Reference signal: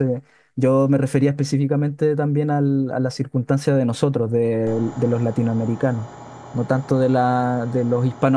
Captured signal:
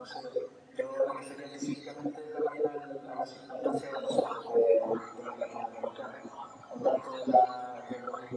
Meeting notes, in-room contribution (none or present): none